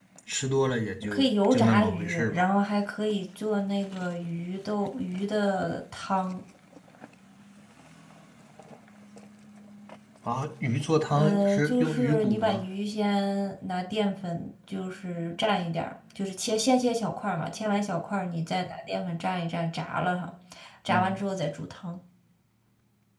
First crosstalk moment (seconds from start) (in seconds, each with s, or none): 1.1 s